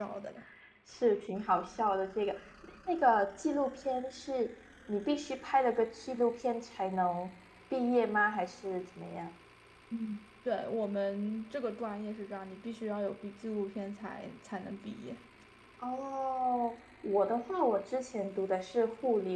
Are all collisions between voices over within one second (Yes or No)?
Yes